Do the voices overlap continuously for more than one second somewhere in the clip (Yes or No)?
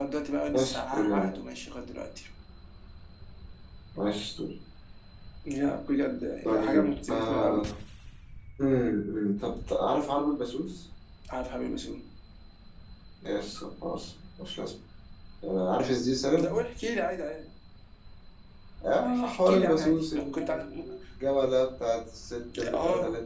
Yes